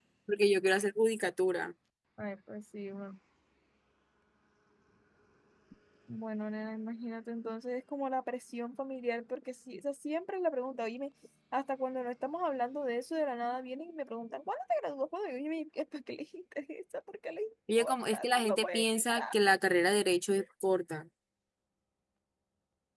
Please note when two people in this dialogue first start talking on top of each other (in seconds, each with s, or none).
17.7 s